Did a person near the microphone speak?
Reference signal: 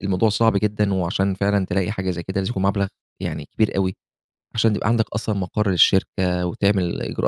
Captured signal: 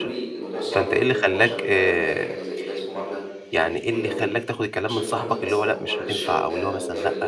Yes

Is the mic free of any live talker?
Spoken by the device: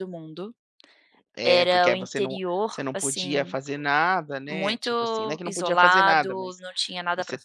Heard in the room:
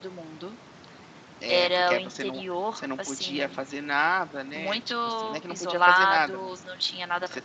Yes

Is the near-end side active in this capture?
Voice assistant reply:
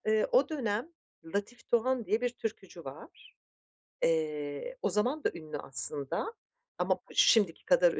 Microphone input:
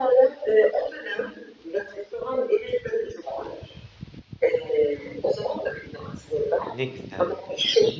Yes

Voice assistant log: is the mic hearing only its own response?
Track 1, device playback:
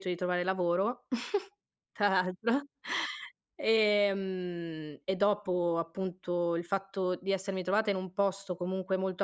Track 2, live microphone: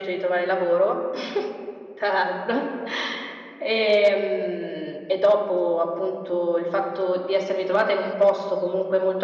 Yes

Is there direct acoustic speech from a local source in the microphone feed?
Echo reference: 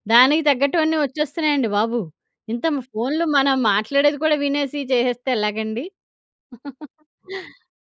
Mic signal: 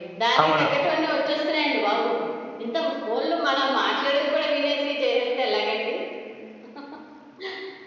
Yes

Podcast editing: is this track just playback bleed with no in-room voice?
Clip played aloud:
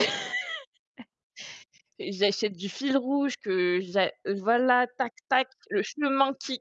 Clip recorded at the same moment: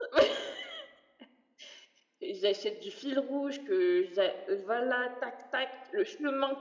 Yes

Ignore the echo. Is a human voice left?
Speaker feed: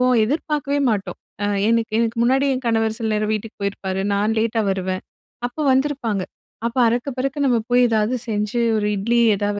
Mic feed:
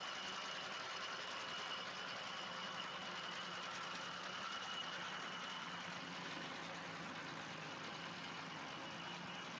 No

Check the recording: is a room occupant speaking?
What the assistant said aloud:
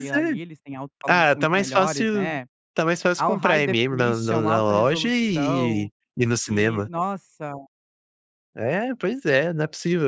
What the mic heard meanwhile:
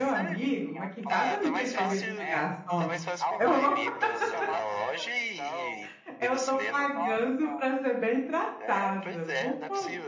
Yes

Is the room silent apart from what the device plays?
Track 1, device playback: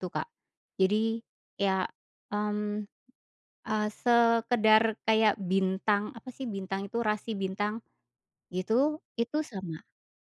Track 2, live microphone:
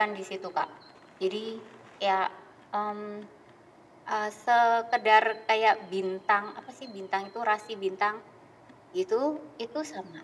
Yes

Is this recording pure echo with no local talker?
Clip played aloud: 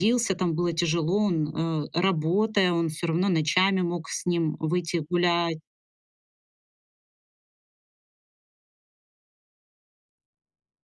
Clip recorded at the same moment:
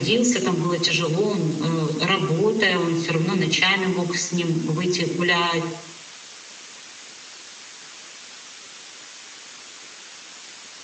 Yes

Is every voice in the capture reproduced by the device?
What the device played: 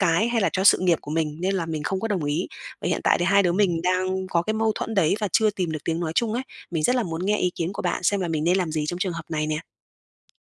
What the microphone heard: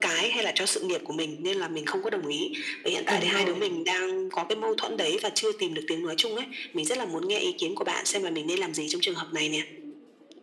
No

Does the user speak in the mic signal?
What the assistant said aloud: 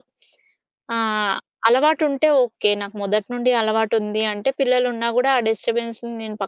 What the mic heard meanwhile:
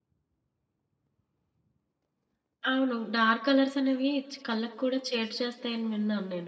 Yes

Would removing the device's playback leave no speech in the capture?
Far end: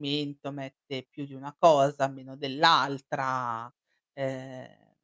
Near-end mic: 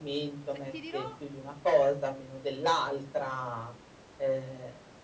No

